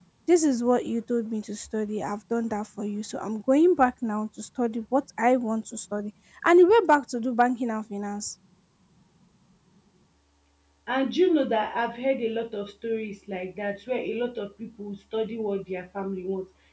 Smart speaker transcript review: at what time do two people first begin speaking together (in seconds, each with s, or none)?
none